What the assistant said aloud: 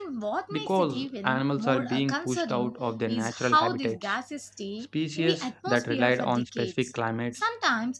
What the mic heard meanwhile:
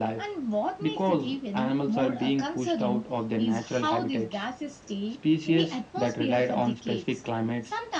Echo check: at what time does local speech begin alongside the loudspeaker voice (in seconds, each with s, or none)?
none